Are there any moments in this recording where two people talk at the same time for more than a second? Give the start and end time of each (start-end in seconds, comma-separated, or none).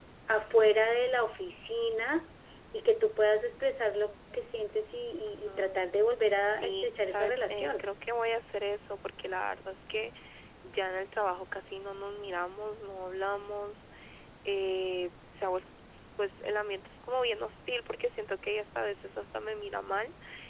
6.4-7.9